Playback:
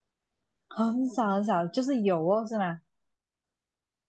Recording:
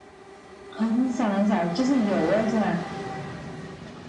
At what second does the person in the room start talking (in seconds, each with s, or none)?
none